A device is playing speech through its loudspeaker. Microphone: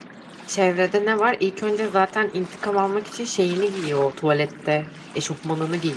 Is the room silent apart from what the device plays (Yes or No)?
No